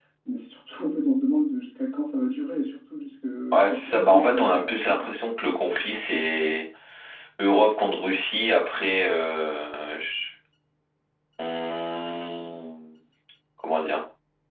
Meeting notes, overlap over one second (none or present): present